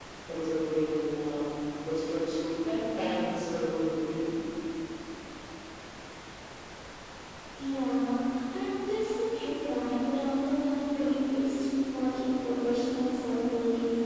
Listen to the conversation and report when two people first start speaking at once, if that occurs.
none

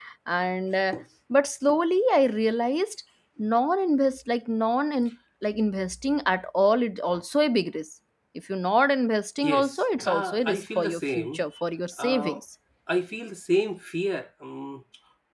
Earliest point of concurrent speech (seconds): 9 s

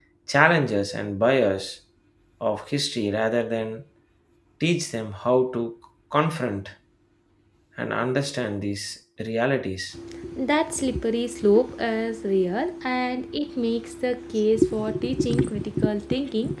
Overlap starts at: none

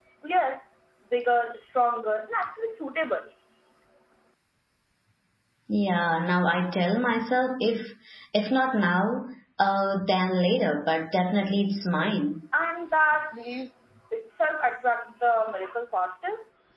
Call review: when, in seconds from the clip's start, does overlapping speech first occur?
none

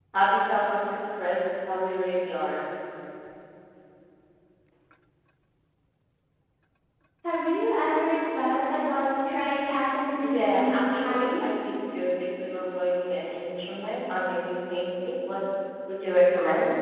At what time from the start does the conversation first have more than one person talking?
10 s

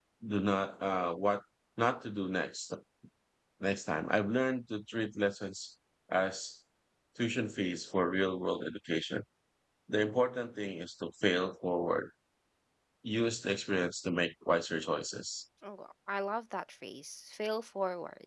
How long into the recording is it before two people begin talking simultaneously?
none

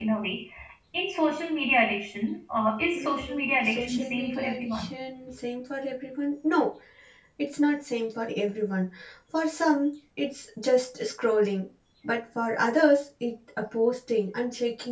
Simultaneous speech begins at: 3 s

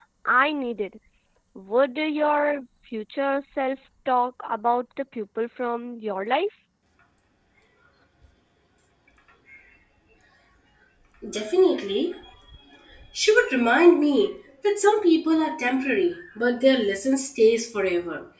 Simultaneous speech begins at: none

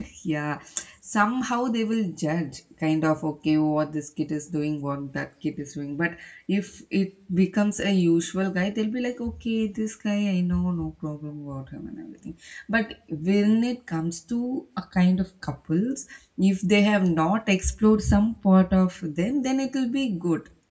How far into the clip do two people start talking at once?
none

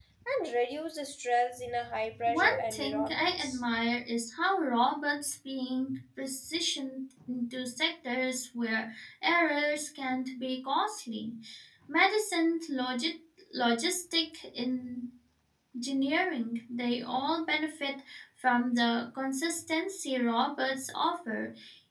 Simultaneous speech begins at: 2 s

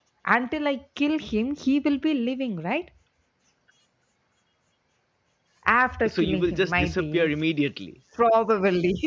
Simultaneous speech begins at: 6 s

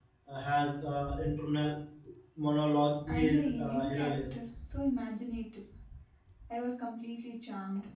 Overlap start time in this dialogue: 3 s

